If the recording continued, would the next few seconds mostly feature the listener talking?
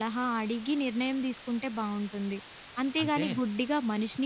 No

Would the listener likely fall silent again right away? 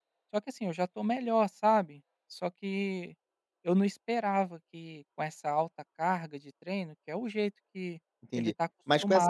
No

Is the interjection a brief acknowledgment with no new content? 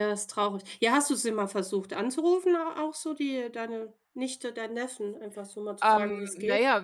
No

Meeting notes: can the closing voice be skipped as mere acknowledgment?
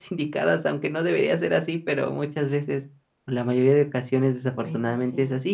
Yes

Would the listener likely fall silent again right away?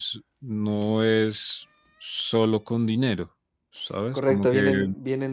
No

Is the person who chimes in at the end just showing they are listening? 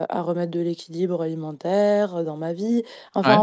Yes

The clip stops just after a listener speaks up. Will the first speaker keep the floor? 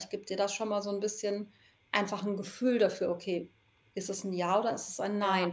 Yes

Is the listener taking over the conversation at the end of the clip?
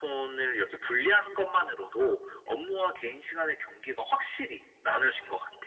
Yes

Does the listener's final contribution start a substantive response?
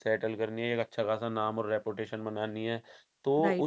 No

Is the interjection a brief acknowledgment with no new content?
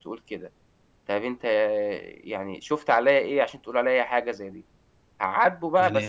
No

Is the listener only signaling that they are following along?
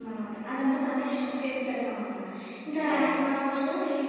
Yes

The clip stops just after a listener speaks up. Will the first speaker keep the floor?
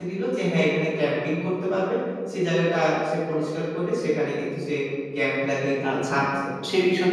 No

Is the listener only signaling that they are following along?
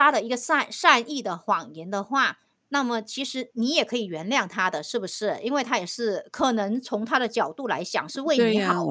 No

